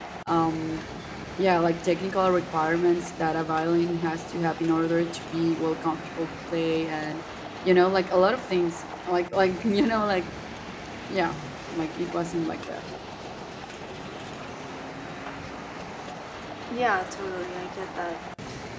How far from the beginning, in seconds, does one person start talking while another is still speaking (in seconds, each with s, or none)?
none